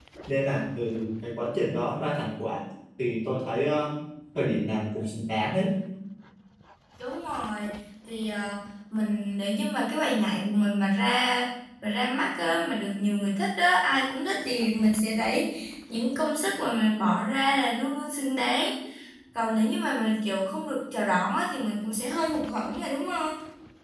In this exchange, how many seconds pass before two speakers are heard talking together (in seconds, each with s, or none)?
none